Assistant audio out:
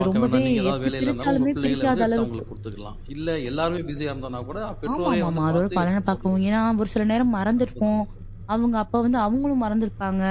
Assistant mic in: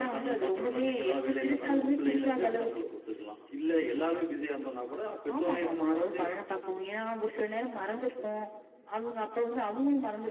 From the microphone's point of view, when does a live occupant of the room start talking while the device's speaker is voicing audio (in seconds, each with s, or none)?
none